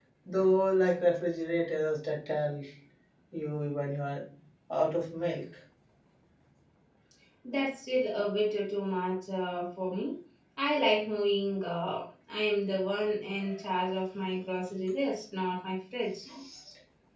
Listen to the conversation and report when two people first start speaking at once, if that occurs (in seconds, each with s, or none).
none